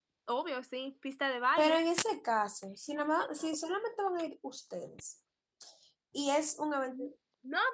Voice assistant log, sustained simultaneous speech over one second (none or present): none